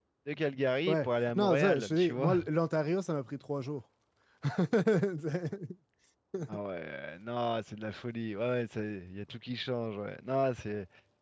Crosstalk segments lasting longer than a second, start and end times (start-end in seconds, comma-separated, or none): 0.9-2.3